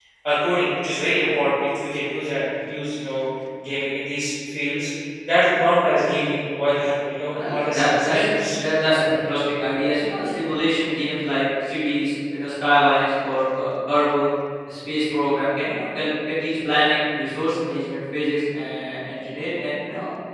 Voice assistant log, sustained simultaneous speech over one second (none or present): present